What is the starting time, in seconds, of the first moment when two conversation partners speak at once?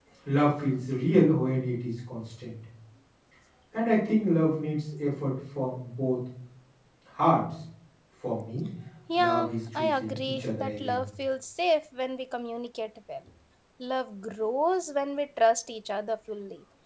9.2 s

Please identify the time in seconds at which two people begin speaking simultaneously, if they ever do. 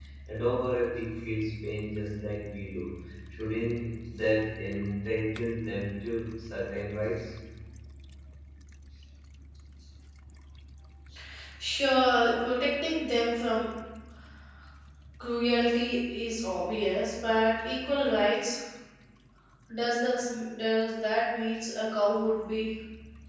none

